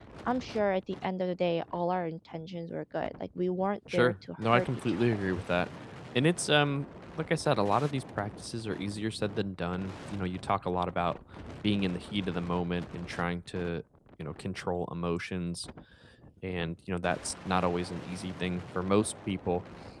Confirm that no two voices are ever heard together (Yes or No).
No